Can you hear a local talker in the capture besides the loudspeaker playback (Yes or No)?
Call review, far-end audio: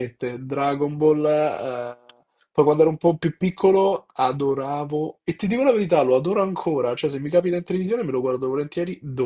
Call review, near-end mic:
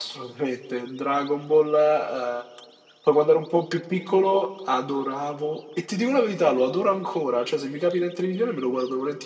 No